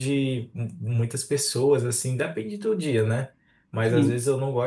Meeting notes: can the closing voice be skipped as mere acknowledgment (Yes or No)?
Yes